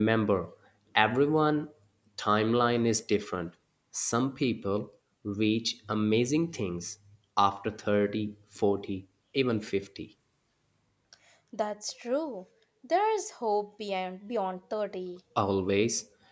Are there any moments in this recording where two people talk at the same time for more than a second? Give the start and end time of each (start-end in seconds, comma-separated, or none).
none